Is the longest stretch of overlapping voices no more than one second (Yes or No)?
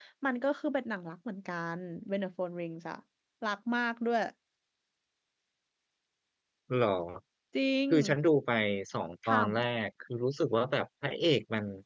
Yes